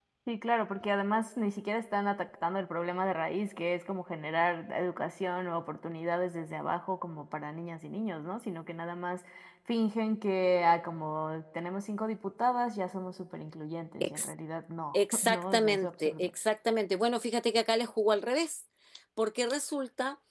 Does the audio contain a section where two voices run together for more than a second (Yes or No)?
Yes